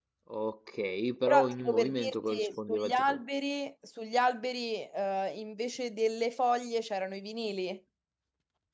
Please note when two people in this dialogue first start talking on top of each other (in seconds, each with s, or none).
1.3 s